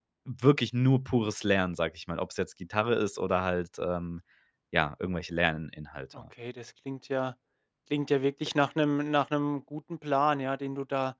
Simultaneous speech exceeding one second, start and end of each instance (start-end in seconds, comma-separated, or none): none